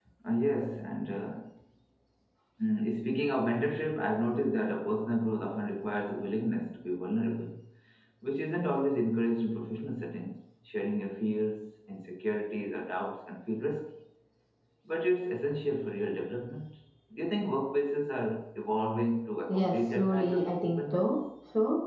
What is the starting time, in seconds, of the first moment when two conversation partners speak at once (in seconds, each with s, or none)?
19.5 s